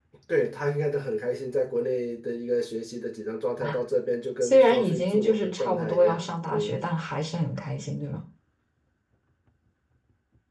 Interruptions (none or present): present